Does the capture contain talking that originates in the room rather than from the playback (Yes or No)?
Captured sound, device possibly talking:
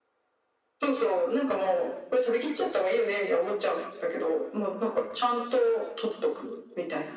No